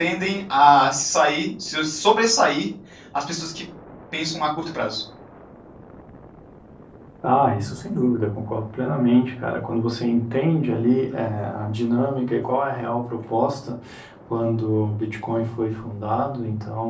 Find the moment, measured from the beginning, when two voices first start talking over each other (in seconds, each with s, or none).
none